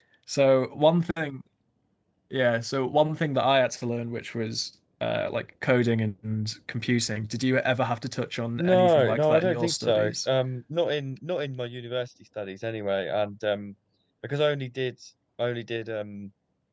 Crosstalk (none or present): present